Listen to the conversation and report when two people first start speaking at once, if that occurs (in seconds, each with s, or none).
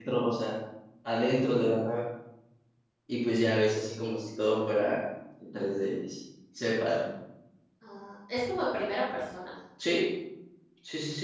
none